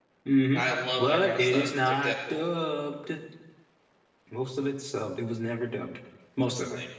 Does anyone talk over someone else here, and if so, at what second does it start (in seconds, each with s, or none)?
1.0 s